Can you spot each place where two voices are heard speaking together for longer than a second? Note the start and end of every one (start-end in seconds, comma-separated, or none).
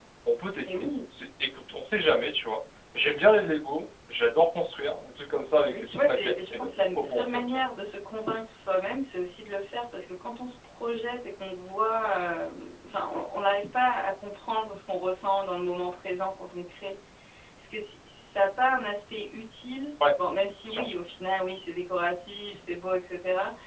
5.7-7.6